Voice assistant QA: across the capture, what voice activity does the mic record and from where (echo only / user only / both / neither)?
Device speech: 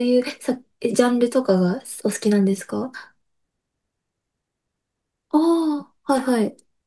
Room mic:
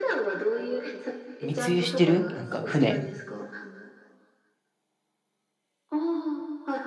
both